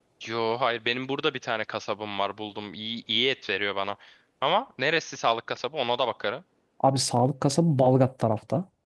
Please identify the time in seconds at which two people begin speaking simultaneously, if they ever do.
none

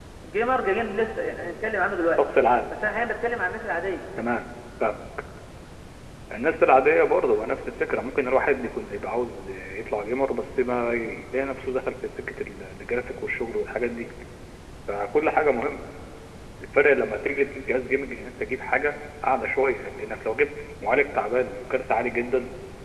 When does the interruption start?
none

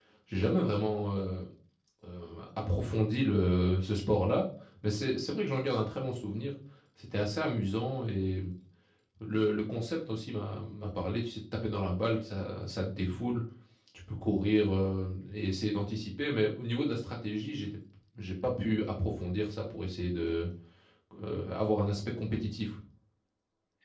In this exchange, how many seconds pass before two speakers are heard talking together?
none

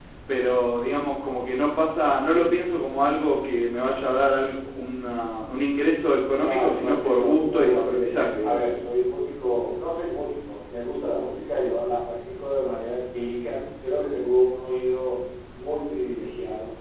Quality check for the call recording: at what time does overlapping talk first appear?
6.4 s

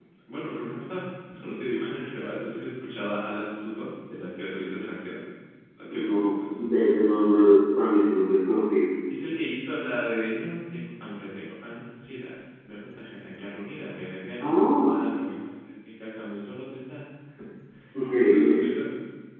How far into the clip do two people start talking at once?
5.9 s

